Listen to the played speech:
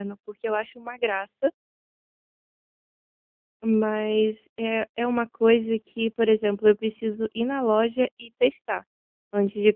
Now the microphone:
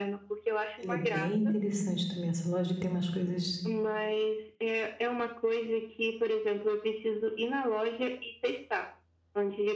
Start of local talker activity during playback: 1 s

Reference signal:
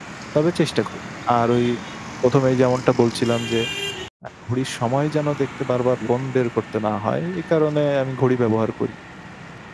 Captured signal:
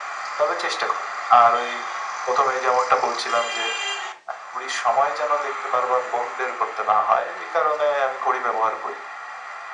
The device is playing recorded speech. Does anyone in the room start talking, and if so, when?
none

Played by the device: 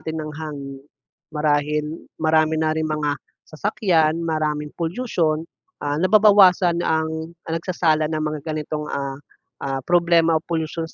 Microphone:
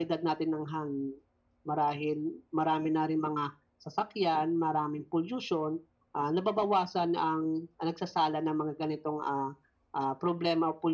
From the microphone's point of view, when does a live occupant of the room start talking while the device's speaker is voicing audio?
none

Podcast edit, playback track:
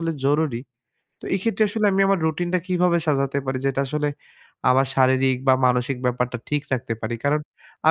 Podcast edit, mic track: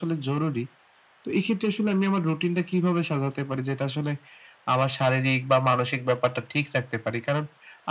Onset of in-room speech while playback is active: none

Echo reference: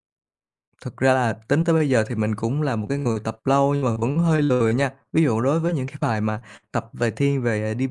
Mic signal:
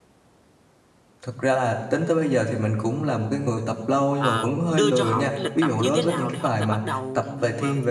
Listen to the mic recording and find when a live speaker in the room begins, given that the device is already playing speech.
4 s

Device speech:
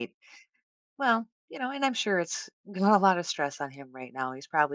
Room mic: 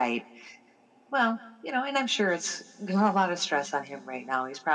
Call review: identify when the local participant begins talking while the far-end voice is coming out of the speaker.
none

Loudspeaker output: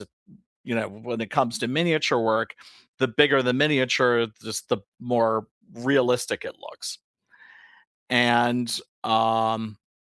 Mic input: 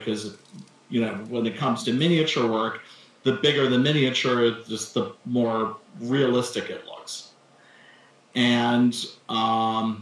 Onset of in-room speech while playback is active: none

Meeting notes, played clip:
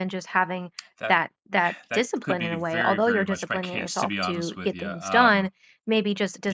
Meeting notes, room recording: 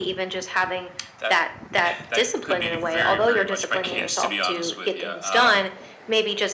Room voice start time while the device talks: none

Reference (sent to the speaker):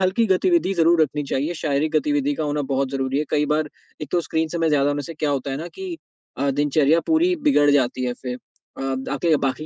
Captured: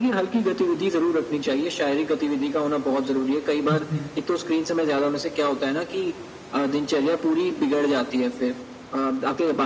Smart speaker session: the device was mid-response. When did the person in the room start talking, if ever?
4 s

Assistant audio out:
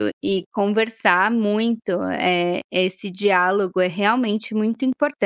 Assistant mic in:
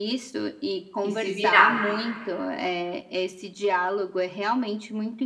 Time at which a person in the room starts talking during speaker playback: 1 s

